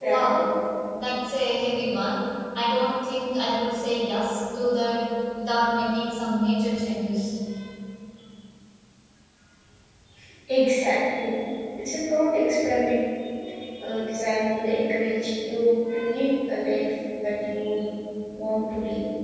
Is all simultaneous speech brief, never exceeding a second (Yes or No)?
Yes